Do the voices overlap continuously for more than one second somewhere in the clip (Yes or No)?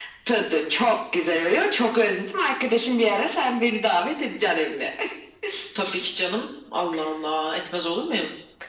No